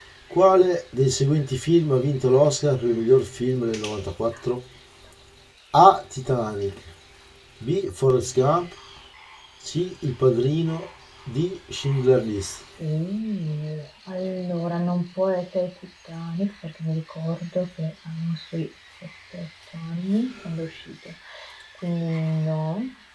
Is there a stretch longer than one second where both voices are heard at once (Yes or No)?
No